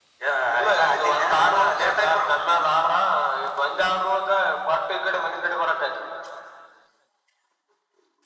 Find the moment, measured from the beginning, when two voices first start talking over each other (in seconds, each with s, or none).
0.7 s